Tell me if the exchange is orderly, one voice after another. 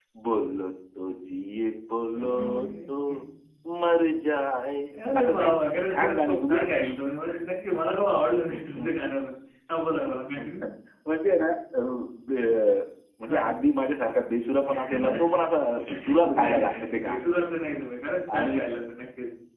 No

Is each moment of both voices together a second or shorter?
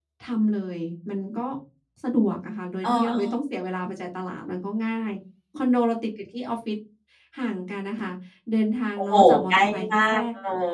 No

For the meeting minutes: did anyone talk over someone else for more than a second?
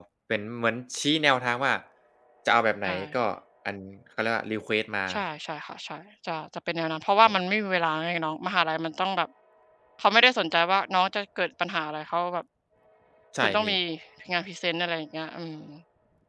No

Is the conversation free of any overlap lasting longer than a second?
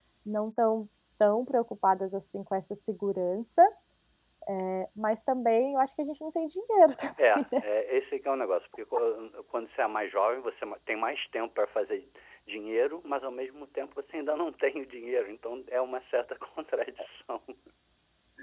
Yes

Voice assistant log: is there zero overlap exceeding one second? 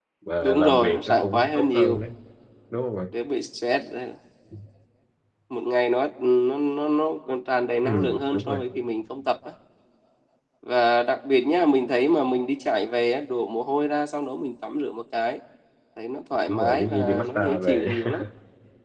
No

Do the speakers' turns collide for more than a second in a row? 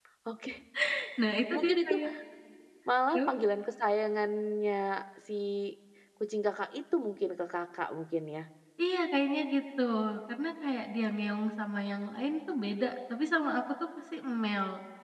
No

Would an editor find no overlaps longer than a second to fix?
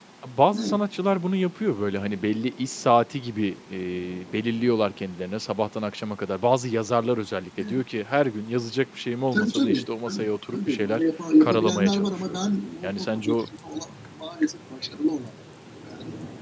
No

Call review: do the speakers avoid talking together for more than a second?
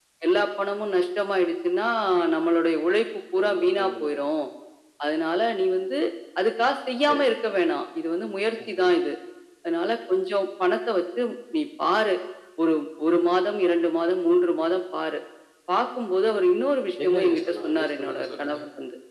No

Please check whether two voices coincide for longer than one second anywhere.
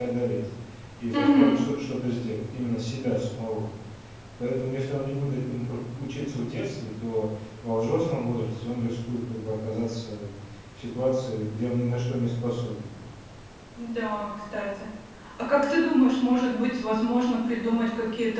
No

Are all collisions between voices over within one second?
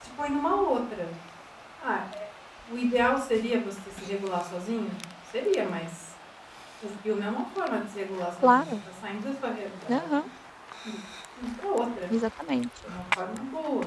Yes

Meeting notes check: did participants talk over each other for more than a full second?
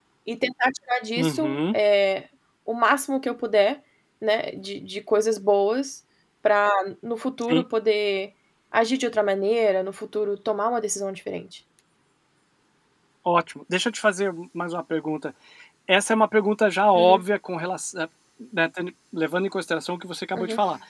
No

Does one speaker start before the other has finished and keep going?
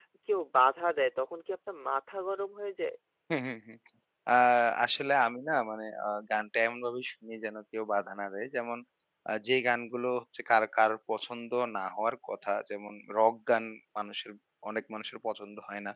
No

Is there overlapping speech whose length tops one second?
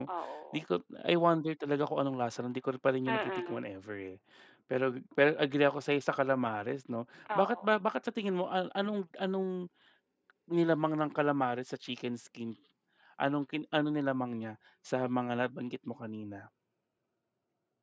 No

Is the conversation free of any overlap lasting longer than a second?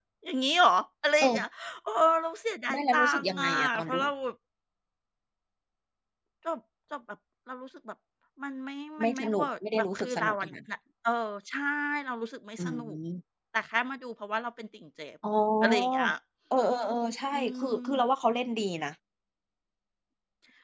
No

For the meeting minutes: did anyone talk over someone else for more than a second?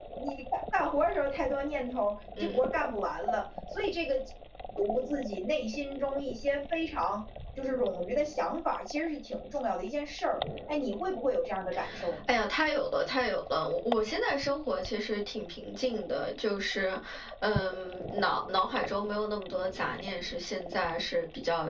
No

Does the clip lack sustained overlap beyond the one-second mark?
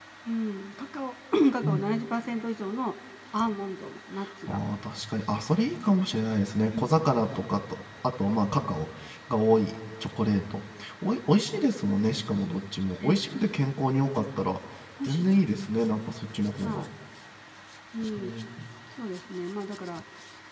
Yes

